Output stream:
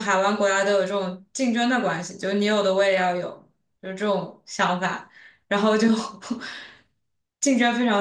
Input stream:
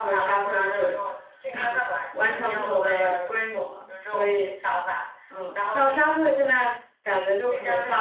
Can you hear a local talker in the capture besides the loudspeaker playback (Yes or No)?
Yes